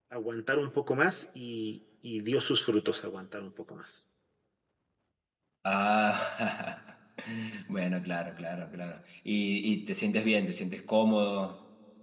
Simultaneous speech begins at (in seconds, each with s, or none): none